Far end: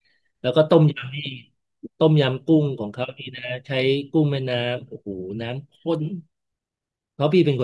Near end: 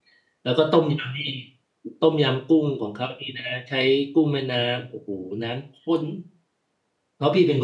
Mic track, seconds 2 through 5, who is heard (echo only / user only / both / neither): echo only